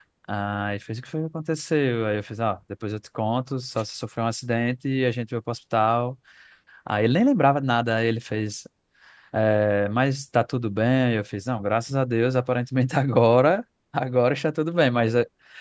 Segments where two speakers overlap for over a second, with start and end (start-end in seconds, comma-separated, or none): none